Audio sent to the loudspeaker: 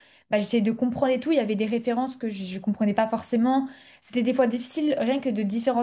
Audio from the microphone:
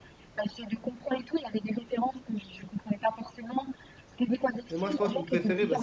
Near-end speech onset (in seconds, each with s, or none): 4.7 s